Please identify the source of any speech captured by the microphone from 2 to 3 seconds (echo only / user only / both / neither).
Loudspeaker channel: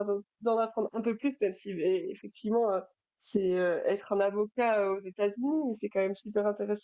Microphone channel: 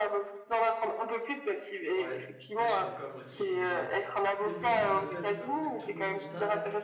both